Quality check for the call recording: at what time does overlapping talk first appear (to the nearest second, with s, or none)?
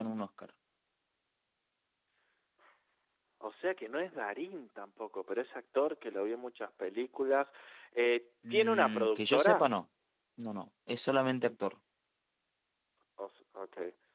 9 s